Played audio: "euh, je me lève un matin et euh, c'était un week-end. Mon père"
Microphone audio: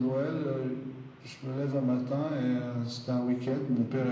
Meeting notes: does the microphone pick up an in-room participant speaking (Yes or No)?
No